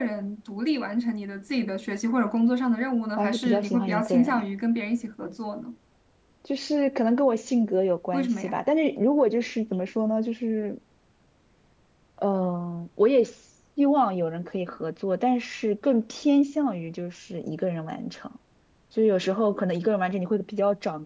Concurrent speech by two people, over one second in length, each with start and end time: 3.2-4.4

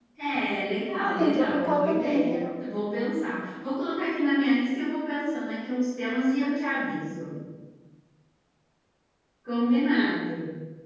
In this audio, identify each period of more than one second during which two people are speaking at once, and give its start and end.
1.0-2.5

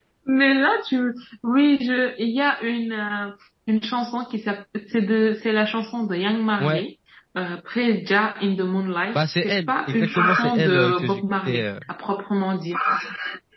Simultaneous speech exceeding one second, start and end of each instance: 9.2-11.6

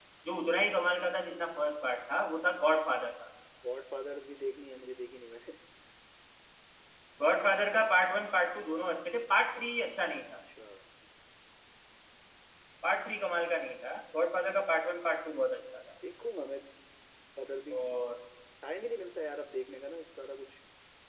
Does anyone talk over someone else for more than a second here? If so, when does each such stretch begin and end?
none

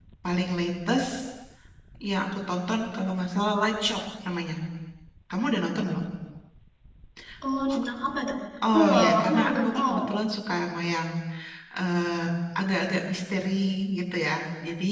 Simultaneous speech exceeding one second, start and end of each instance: 8.7-10.0

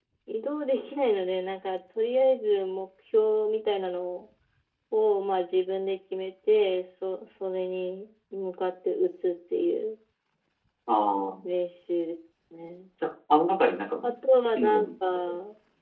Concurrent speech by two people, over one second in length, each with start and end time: none

